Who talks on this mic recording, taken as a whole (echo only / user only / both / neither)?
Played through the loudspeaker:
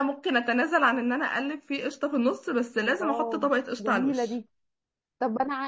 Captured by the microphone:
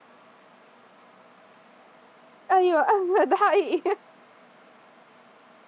user only